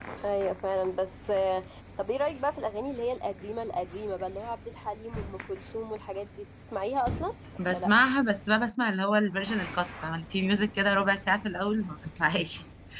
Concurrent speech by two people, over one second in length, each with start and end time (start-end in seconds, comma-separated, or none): none